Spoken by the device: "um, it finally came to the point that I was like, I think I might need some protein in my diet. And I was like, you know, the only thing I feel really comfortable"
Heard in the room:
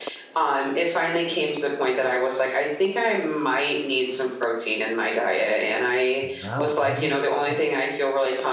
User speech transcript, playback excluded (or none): Wow. Have you ha